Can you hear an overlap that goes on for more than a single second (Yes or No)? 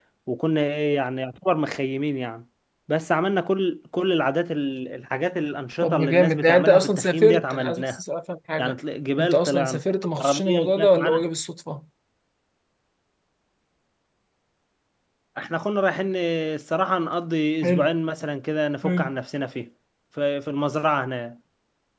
Yes